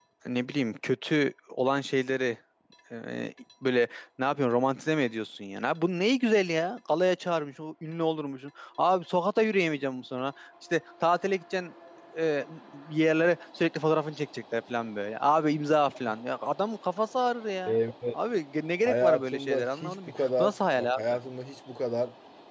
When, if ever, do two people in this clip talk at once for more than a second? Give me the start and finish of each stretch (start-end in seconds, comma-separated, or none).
18.8-21.2